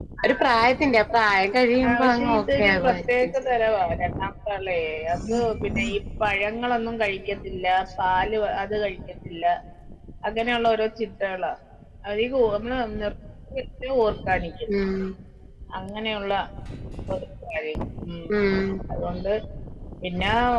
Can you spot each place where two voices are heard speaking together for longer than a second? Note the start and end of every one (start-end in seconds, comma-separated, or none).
1.9-3.3